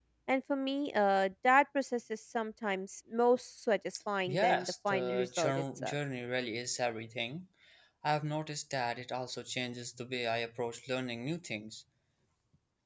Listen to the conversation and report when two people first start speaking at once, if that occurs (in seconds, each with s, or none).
4.3 s